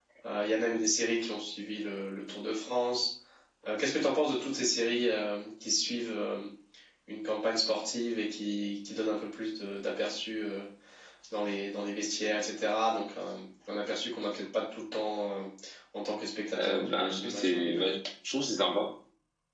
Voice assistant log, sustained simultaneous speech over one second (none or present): present